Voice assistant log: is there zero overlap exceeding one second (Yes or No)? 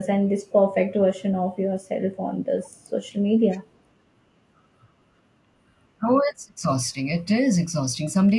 Yes